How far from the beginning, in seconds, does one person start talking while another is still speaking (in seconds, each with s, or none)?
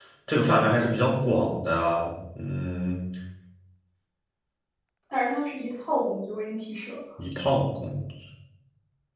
none